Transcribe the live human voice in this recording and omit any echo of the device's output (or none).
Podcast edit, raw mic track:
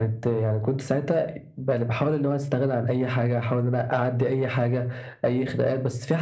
none